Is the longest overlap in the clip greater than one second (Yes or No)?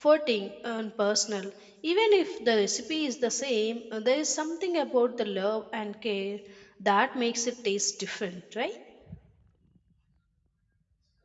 No